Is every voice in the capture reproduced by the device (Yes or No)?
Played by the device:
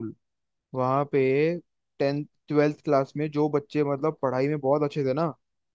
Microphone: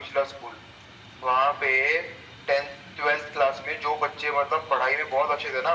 Yes